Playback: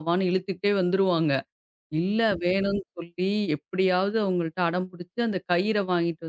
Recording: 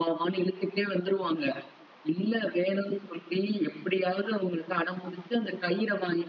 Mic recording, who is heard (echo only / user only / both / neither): echo only